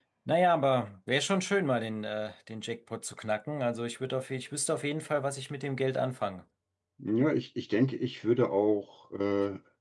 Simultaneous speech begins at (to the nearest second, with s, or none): none